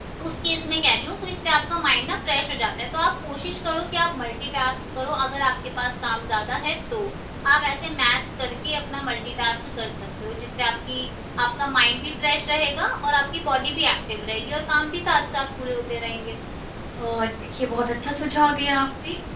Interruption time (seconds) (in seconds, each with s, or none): none